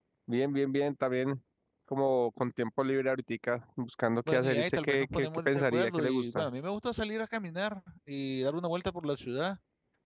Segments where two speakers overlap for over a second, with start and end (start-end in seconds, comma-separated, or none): 4.3-6.5